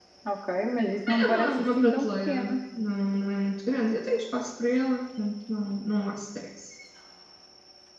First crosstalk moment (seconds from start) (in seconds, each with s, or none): 1.1 s